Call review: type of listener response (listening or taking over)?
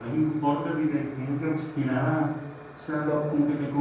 listening